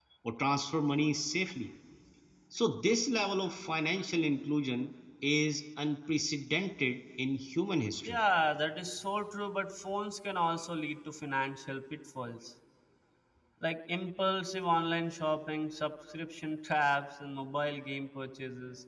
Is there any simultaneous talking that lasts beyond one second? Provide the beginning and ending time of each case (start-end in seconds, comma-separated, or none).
none